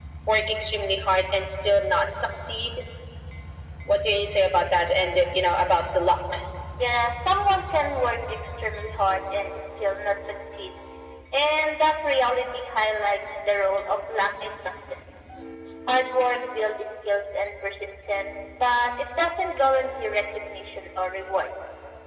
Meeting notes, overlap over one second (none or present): none